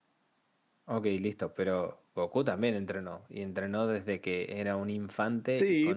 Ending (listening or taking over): taking over